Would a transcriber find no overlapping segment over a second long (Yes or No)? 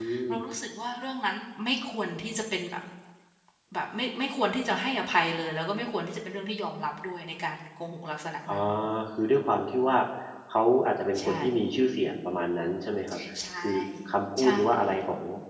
Yes